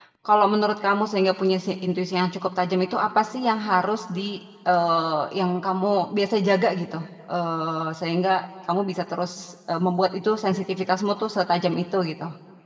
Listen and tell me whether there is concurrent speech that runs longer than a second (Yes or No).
No